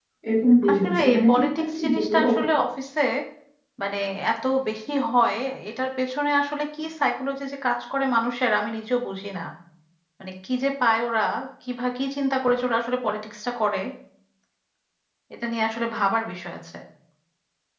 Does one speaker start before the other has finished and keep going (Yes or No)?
Yes